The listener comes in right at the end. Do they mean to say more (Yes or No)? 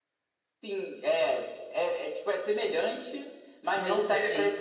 No